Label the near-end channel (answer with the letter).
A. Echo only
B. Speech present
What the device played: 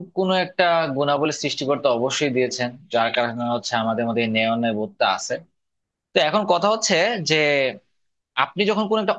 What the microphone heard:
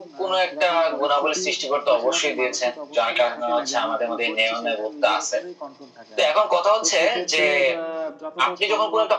B